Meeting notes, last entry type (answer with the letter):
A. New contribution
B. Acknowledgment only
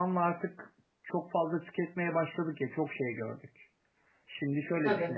B